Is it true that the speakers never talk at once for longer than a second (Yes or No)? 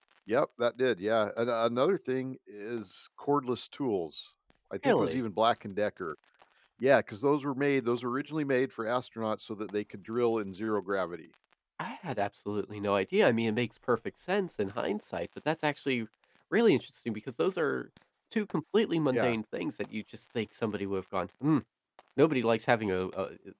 Yes